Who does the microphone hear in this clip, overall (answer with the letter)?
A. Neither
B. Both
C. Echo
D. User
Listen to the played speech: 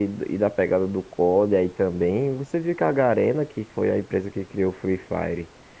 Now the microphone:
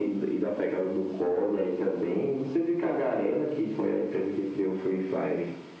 C